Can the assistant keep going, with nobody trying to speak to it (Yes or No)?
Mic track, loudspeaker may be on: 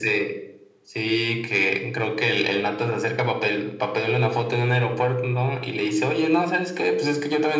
Yes